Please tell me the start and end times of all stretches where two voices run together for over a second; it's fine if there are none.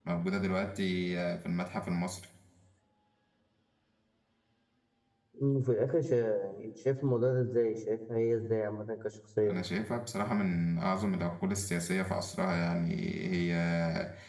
none

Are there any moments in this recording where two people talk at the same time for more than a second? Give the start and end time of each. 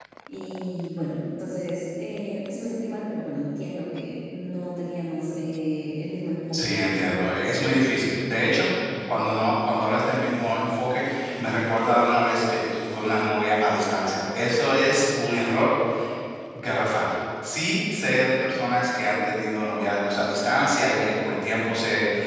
none

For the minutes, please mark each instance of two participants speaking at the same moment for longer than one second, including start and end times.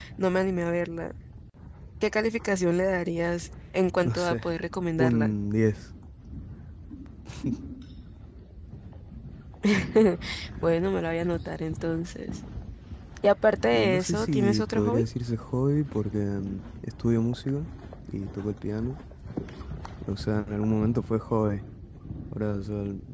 13.7-15.0

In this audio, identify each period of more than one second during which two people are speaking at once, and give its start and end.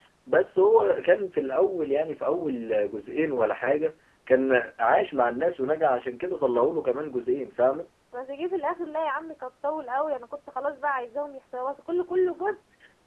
none

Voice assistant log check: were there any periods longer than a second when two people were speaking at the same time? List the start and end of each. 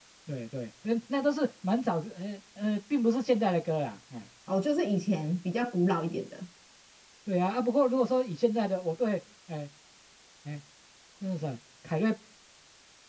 none

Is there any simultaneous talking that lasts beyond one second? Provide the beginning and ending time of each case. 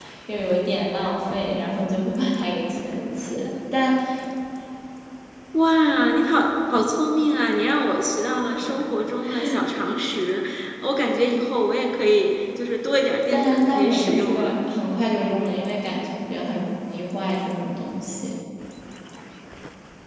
13.3-14.5

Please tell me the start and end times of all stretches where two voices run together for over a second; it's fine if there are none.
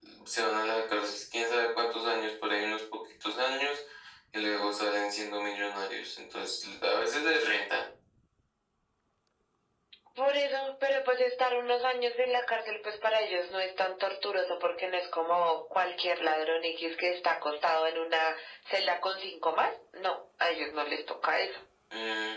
none

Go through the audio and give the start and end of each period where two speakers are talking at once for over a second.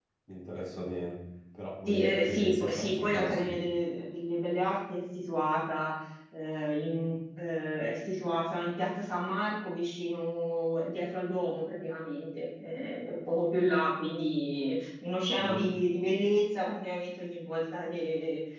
1.9-3.5

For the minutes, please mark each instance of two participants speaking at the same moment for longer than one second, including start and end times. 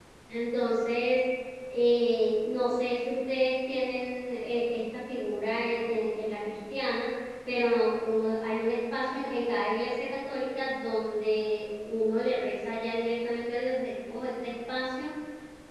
none

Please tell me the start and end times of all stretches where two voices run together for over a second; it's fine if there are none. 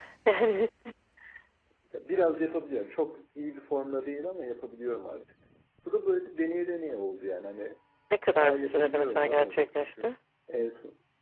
8.4-10.1

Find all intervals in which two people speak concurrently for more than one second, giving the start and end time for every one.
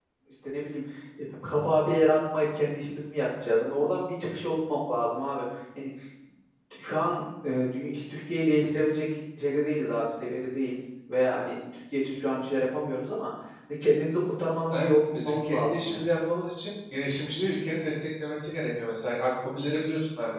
14.7-16.0

